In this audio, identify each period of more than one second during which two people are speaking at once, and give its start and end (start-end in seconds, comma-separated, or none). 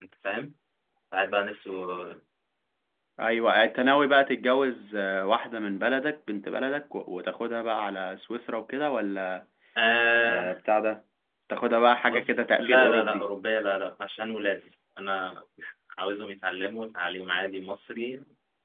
12.1-13.3